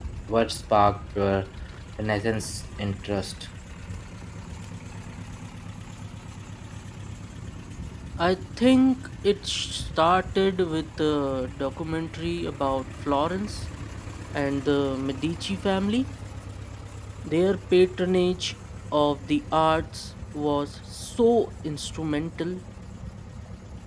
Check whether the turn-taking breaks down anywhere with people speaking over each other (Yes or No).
No